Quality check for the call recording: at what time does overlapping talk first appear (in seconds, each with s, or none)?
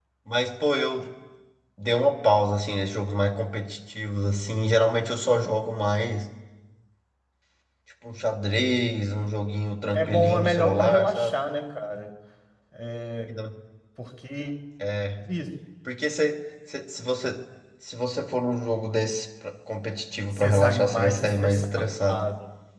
9.9 s